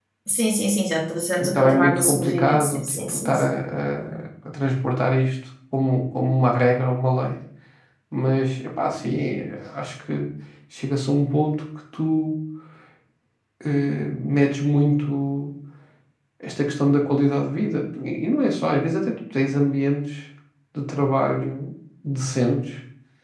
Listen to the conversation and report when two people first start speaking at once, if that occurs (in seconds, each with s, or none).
1.4 s